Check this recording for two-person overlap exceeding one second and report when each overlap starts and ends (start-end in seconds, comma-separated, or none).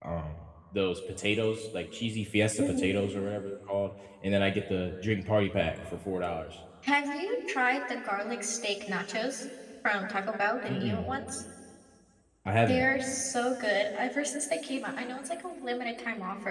none